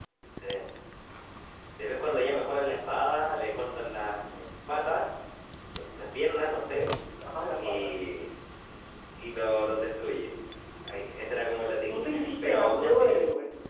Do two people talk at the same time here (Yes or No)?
Yes